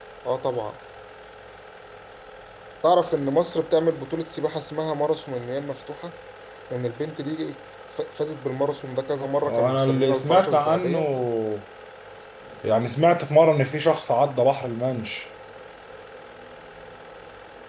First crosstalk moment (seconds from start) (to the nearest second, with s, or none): 9 s